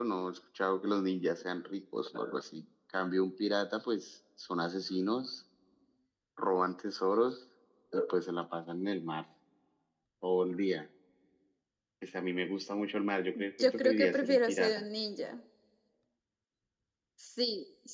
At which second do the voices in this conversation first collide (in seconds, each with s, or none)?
13.3 s